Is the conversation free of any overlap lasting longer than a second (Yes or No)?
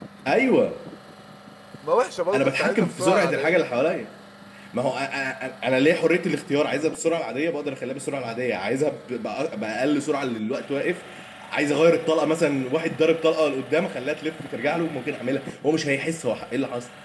No